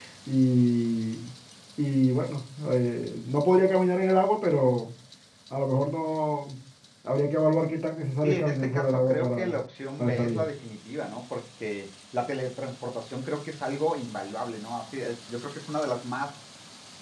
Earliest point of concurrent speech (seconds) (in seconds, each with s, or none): 8.2 s